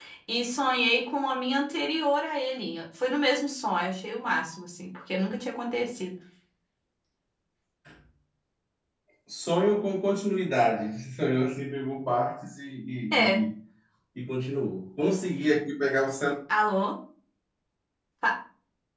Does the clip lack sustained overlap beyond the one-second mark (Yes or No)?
Yes